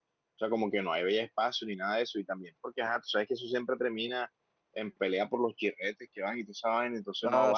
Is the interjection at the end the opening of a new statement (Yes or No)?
Yes